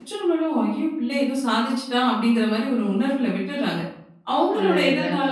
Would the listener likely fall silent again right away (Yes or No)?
Yes